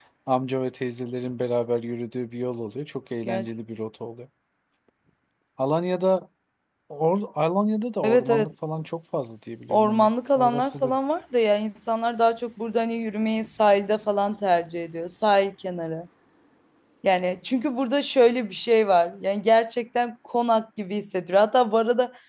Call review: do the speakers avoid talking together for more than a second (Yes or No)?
No